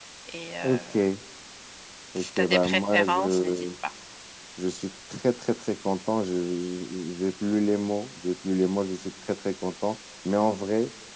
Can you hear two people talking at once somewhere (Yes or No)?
Yes